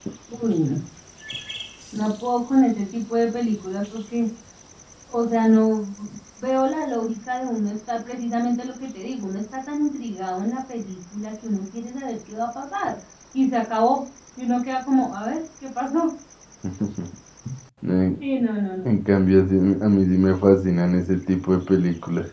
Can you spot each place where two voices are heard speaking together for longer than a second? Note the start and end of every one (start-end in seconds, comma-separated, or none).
none